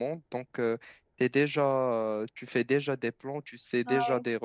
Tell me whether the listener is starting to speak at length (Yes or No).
No